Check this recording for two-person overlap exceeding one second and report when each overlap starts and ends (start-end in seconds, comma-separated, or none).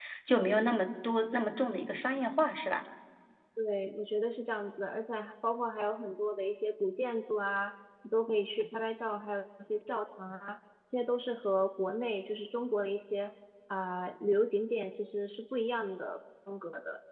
none